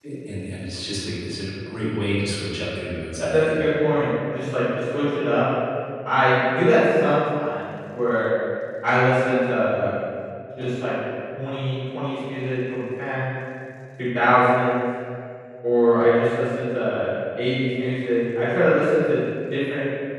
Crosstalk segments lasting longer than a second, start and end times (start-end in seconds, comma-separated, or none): none